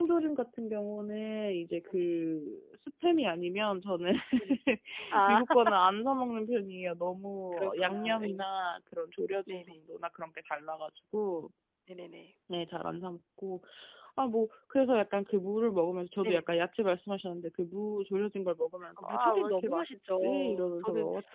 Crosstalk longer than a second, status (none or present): present